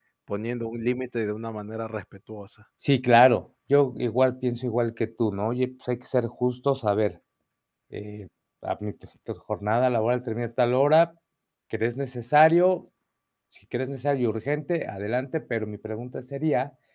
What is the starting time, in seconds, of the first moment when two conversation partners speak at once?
none

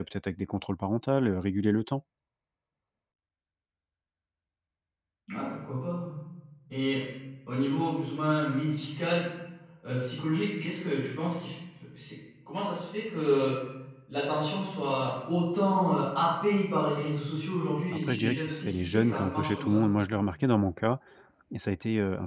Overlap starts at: 17.9 s

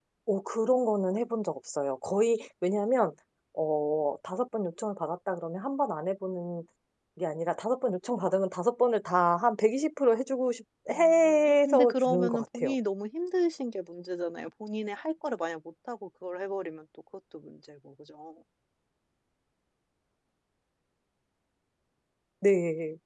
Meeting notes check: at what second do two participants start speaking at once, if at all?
10.9 s

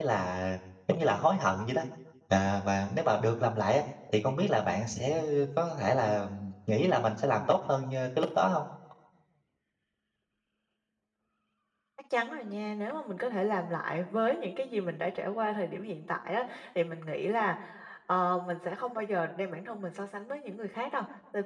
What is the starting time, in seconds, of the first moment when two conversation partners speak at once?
none

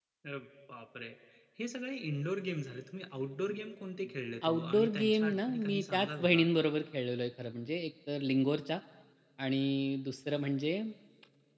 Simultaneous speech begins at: 4.4 s

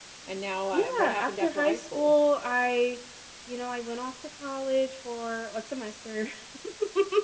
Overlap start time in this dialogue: 0.7 s

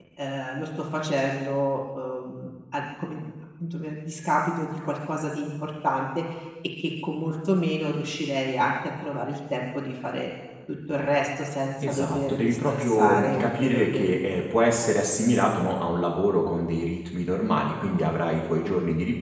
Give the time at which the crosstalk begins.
11.8 s

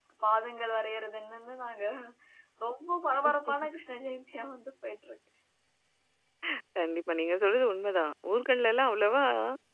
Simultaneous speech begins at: none

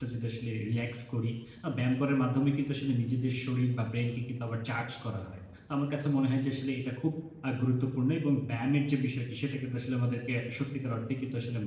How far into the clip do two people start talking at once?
none

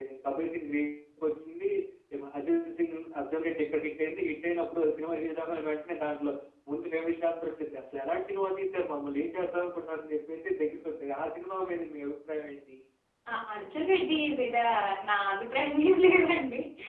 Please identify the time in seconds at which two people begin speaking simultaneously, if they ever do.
none

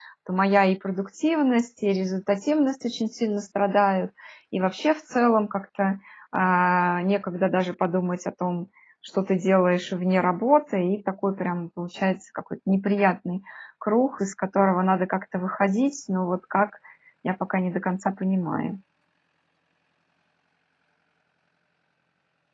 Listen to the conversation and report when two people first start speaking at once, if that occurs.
none

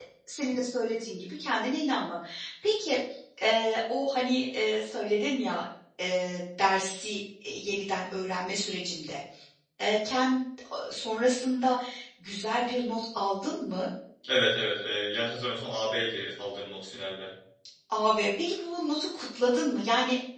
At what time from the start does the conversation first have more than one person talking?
none

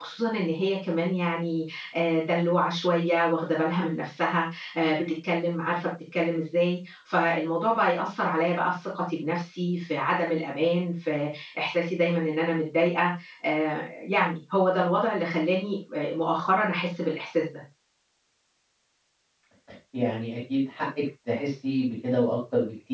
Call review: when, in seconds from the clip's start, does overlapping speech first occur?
none

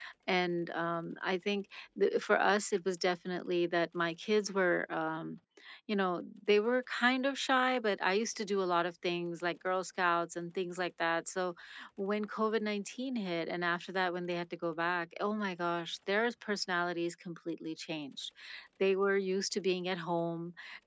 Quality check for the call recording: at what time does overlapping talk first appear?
none

